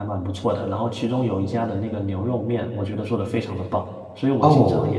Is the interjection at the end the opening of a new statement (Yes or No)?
No